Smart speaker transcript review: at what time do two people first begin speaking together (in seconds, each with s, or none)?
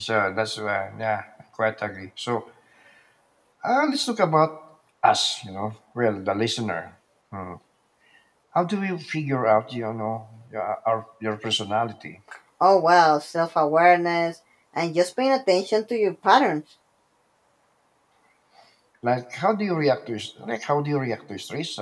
none